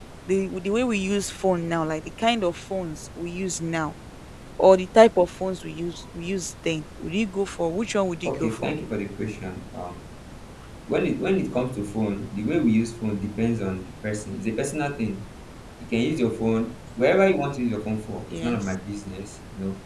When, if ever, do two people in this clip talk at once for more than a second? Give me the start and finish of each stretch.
none

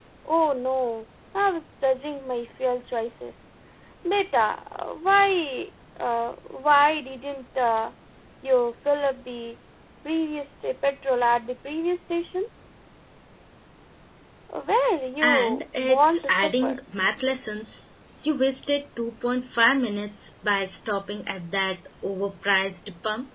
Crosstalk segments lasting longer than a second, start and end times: 15.2-16.8

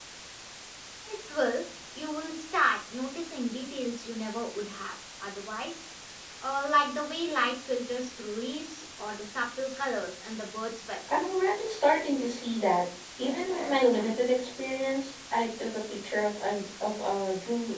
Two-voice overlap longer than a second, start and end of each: none

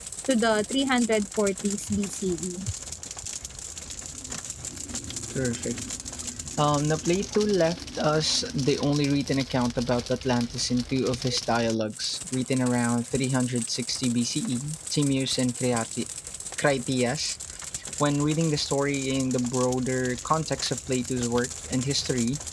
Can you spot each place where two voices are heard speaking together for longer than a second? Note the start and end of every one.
none

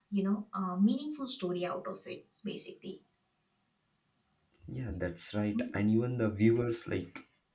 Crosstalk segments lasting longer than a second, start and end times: none

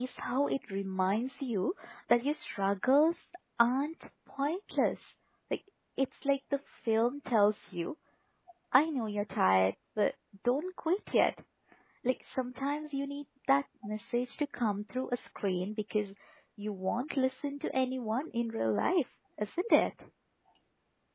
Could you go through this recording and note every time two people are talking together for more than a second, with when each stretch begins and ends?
none

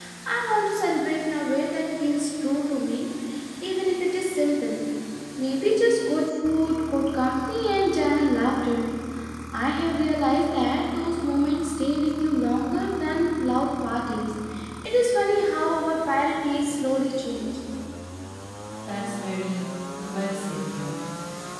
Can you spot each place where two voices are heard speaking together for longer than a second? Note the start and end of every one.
none

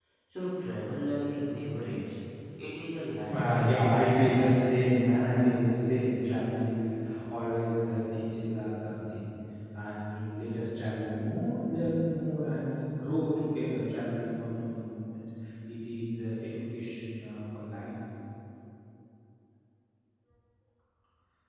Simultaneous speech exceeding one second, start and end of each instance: 3.3-4.5

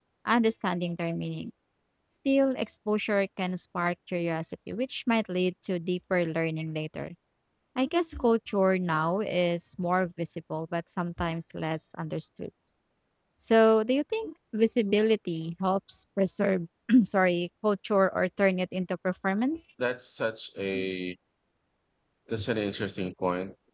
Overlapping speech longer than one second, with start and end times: none

